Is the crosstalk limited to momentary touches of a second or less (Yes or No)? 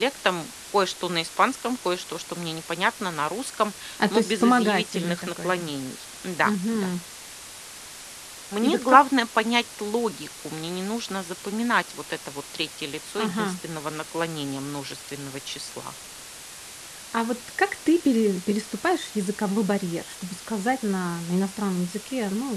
No